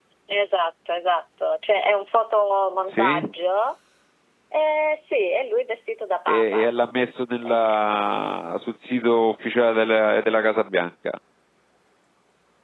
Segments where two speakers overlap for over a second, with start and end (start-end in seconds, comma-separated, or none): none